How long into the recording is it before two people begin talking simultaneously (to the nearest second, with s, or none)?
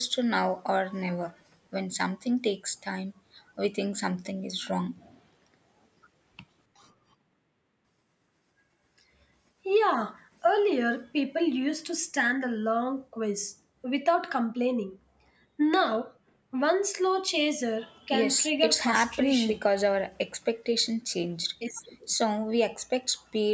18 s